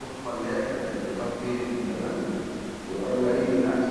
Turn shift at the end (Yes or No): No